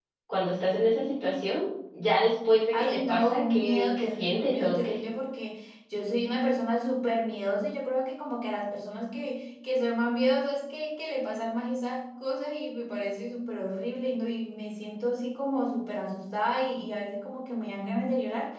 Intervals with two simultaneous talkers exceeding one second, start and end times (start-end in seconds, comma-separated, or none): 2.8-5.0